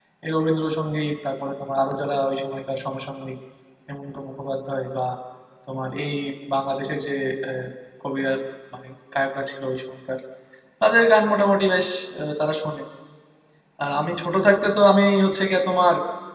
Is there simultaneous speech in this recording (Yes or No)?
No